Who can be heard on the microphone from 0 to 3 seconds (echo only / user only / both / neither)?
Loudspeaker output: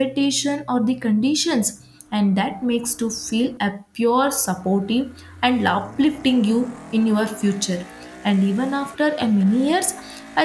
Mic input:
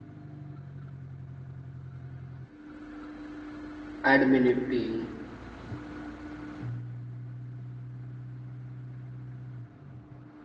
neither